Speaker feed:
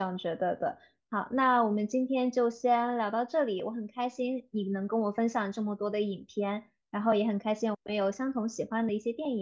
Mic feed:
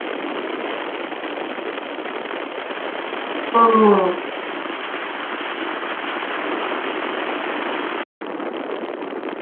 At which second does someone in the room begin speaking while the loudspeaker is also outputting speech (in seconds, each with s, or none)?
3.5 s